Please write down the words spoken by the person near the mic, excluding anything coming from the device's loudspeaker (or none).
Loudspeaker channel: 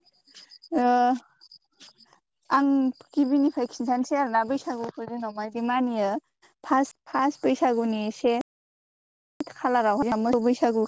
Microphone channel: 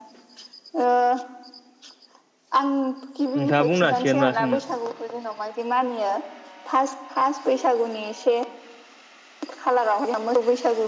नोंथाङा बुंनो हासिगोन मा सोंनो।